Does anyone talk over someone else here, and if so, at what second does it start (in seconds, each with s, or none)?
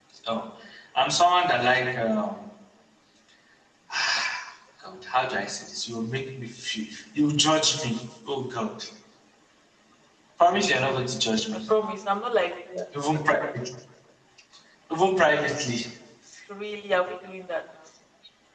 none